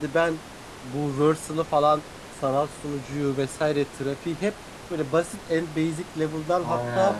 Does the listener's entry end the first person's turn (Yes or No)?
No